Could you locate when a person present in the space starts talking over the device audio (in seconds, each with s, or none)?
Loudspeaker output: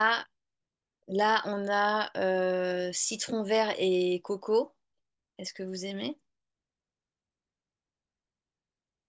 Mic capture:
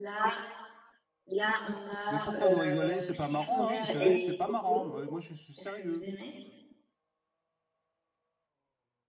2.1 s